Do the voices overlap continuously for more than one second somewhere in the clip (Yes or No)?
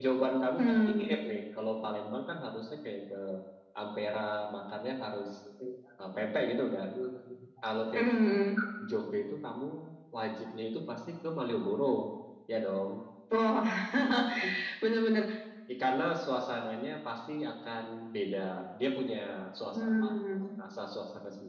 No